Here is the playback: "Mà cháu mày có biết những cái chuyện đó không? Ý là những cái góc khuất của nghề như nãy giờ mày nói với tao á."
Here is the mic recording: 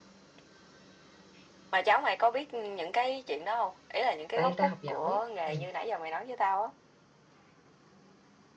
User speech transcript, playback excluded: tại người ta học giỏi ừ.

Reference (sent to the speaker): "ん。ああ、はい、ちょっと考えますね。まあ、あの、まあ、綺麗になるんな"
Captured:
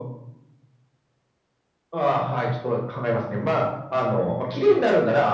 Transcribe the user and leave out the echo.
none

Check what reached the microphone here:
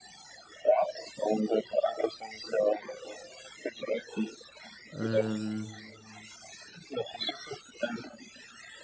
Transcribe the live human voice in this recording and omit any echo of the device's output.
Ähm,

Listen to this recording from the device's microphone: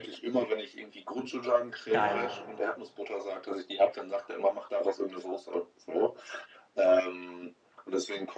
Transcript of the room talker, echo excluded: Geil.

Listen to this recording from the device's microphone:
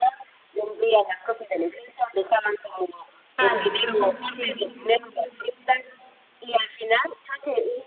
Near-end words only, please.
Tal, ujú, sí,

